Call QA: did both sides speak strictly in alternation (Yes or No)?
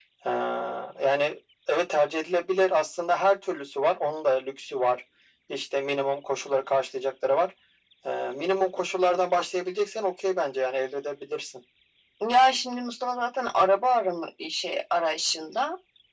Yes